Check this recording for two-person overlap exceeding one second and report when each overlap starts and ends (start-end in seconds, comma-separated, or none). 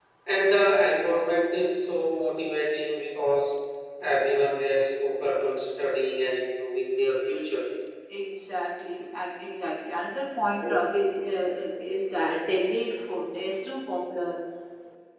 none